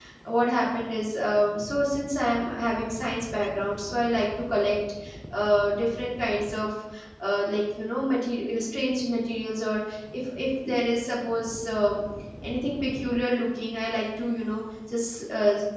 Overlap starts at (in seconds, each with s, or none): none